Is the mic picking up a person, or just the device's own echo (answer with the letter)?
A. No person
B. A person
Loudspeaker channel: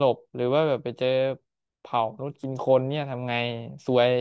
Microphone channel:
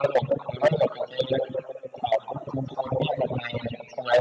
A